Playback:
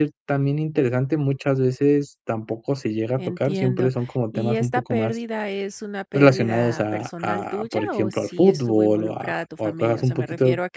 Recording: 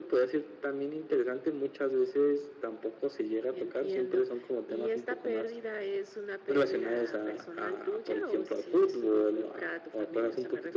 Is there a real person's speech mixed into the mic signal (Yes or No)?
No